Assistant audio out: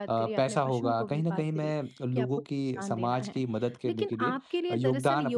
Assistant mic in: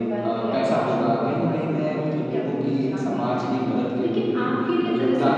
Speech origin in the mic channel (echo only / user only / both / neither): echo only